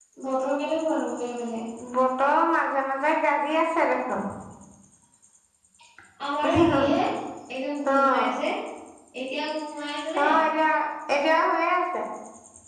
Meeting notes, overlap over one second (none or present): none